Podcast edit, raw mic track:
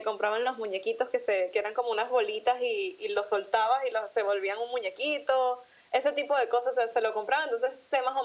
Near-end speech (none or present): none